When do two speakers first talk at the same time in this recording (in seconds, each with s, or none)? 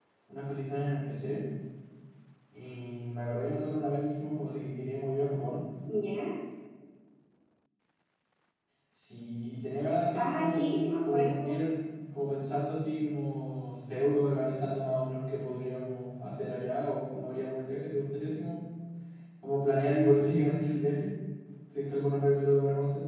10.2 s